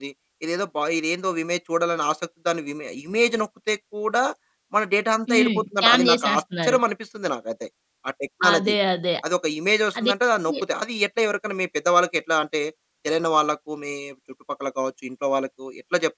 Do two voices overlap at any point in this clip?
Yes, from 5.3 s

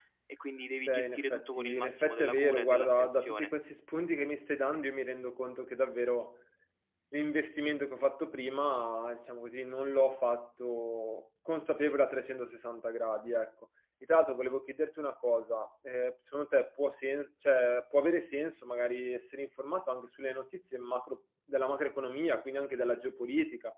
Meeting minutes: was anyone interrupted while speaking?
Yes, from 0.8 s

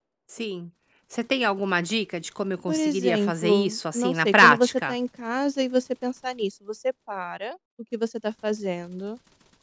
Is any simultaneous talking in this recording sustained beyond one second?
Yes, from 2.7 s

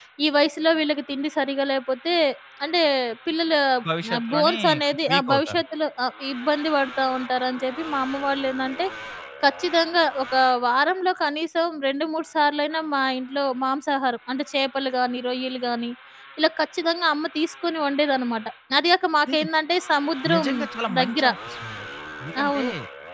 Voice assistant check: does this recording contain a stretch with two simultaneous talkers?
Yes, from 4.1 s

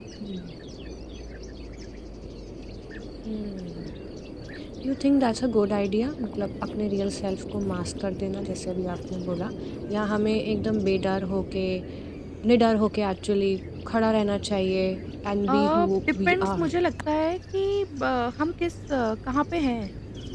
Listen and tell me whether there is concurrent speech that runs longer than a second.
Yes, from 15.5 s

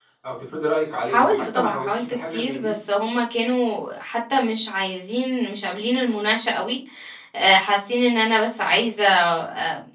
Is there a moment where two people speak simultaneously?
Yes, from 1.1 s

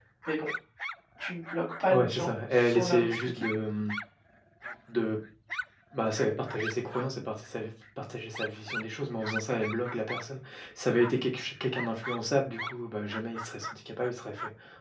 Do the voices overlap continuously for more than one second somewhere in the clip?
Yes, from 1.9 s

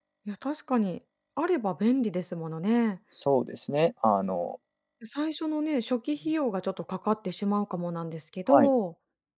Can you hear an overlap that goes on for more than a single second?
No

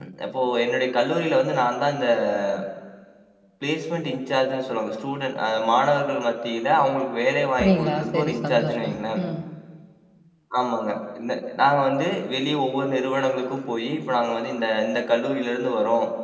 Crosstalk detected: Yes, from 7.6 s

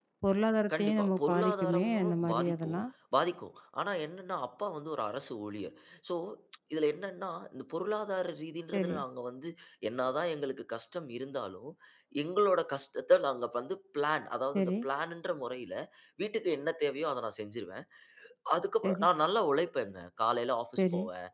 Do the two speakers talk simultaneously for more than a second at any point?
Yes, from 0.8 s

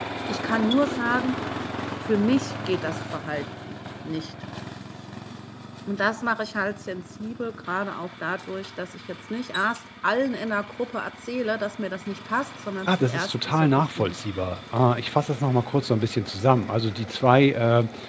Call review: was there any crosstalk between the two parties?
Yes, from 12.9 s

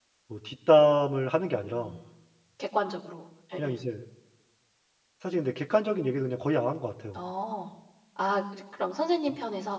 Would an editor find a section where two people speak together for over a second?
No

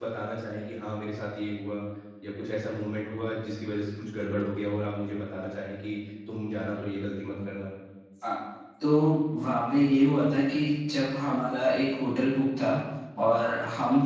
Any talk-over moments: No

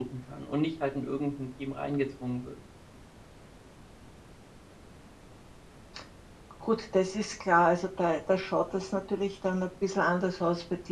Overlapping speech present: No

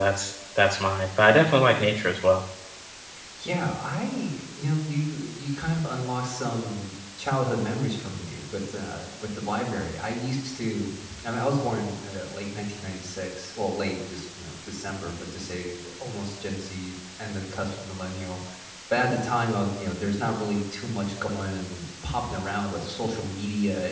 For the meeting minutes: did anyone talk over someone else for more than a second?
No

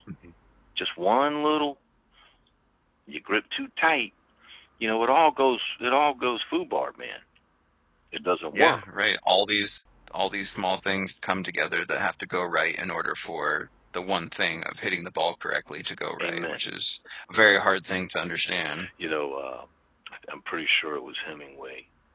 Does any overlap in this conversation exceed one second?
No

